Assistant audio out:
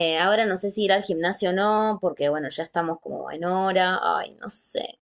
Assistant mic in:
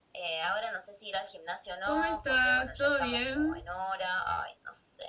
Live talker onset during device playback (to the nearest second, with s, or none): 2 s